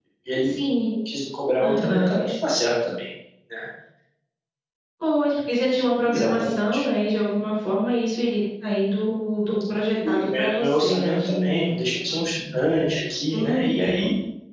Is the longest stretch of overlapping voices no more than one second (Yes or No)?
No